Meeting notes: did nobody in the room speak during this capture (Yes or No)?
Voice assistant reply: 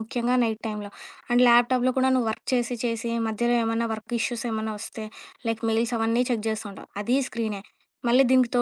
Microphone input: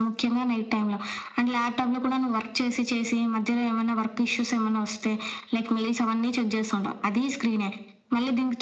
Yes